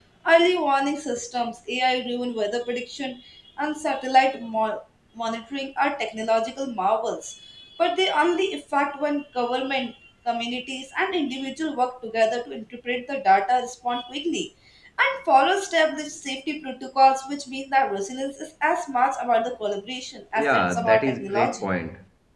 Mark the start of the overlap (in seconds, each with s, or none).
20.4 s